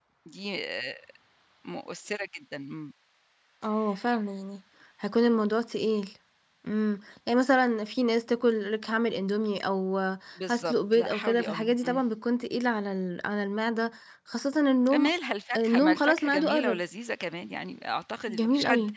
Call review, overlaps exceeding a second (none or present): present